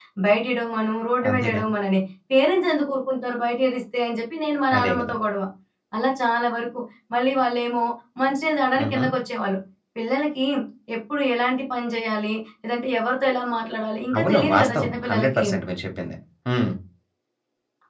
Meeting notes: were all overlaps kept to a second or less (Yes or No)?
No